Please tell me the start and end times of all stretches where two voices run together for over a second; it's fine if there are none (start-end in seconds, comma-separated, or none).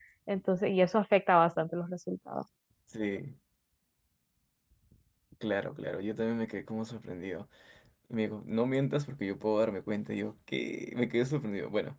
none